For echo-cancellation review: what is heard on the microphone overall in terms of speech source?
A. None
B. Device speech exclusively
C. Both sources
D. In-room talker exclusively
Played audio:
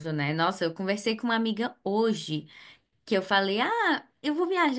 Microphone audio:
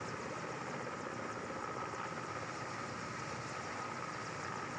A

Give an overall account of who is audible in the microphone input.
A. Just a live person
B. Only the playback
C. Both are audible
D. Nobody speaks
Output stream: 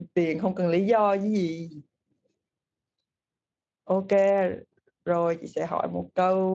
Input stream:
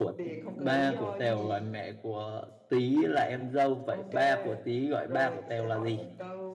C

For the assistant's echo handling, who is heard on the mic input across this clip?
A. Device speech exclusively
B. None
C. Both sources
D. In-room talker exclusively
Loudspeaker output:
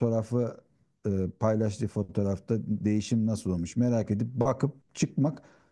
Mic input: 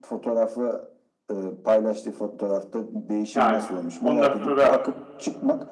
C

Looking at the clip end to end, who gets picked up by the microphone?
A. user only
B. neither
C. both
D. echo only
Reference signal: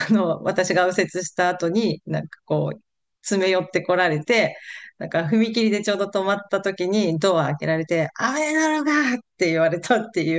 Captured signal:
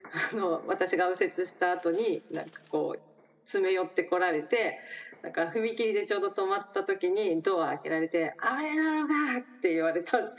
D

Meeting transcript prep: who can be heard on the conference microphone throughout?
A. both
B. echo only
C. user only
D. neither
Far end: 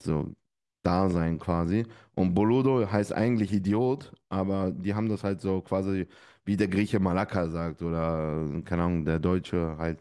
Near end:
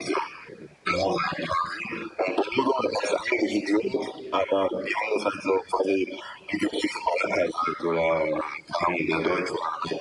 B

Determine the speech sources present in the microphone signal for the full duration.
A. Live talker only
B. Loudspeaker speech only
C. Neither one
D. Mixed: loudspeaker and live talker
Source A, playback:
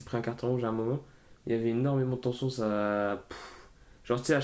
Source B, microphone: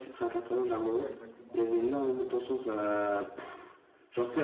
D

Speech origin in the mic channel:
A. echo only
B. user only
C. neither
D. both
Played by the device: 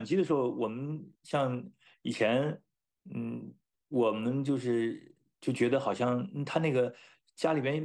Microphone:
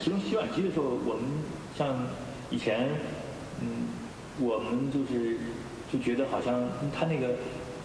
A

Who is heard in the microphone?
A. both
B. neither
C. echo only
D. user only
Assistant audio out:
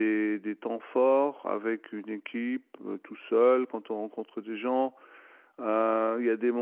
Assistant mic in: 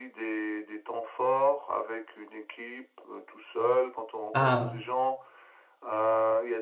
A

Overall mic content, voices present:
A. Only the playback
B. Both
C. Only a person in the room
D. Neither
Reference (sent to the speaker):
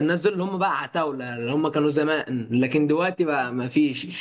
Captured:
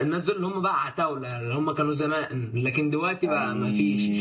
B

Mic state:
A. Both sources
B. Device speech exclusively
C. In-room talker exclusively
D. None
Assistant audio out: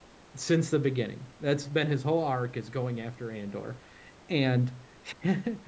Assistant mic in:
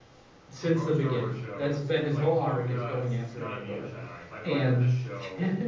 A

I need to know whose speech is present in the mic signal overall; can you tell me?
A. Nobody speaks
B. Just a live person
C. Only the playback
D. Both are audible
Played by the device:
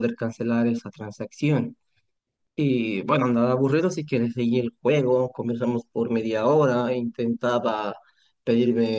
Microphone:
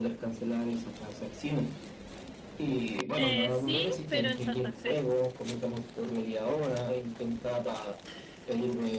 D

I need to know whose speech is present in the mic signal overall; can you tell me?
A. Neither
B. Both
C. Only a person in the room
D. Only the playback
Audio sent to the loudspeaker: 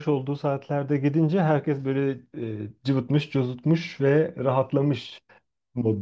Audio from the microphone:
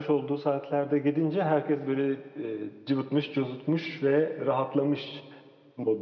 D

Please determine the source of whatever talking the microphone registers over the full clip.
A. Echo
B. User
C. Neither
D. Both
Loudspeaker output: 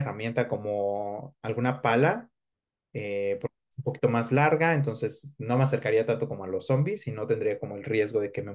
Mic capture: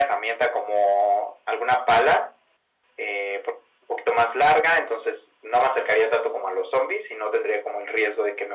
A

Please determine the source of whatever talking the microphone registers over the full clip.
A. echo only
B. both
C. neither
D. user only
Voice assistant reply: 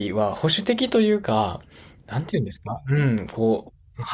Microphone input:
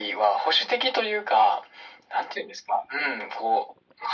A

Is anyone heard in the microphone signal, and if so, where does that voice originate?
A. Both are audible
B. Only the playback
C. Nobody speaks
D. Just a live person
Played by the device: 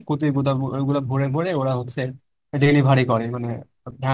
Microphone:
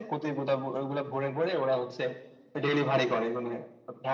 B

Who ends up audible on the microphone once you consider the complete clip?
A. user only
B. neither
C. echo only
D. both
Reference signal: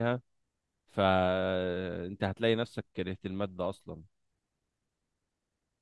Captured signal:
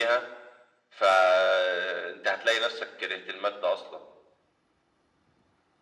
C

